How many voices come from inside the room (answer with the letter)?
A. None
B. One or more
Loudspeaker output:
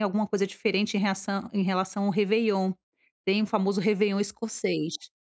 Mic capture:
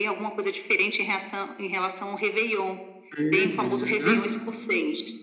B